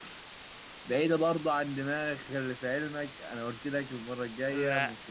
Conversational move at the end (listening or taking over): listening